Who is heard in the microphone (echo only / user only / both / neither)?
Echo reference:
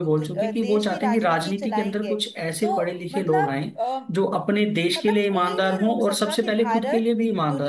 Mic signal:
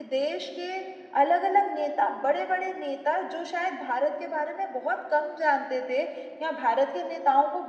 user only